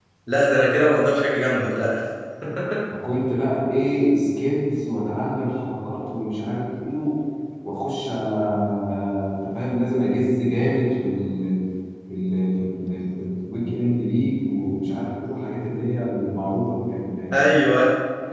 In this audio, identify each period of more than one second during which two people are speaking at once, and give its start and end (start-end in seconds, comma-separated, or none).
none